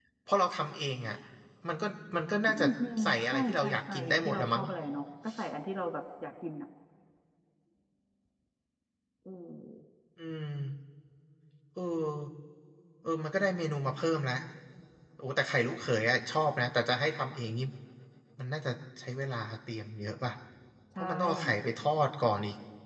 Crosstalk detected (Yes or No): Yes